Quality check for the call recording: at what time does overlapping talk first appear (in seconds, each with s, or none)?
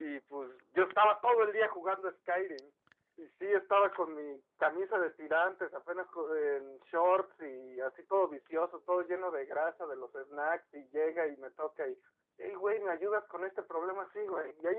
none